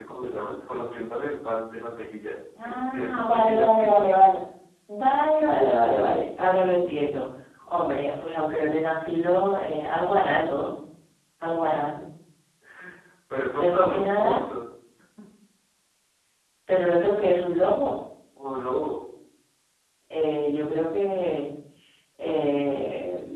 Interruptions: present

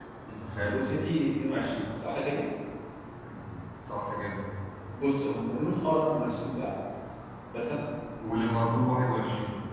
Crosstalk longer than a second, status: none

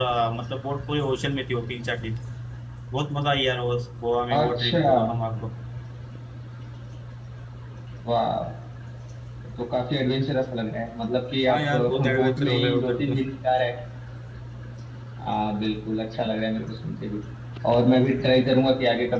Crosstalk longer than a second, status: present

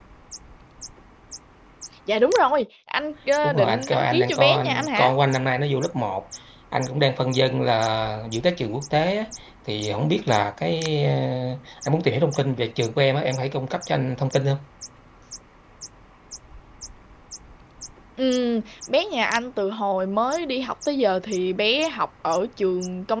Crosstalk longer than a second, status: present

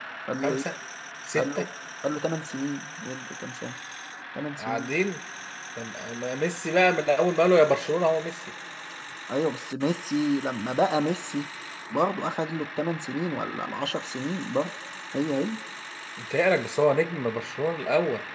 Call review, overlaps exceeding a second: none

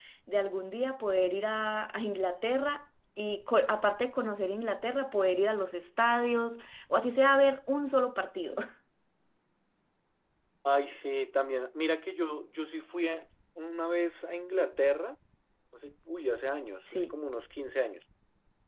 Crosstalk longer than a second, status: none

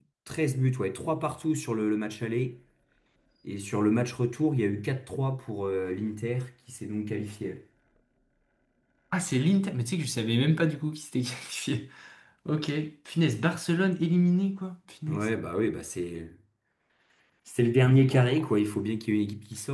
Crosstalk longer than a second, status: none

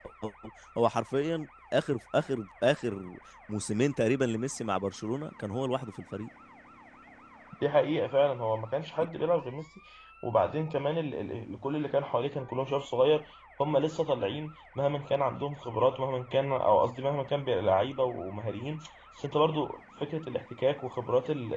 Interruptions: none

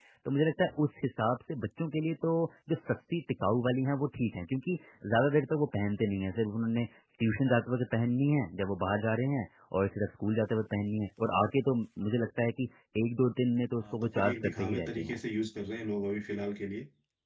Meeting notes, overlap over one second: present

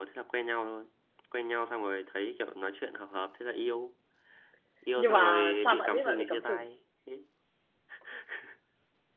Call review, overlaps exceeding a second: present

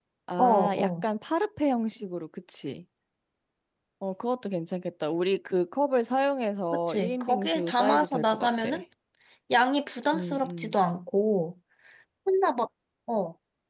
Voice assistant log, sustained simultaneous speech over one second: present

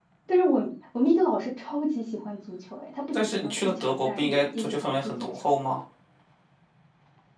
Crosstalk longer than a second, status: present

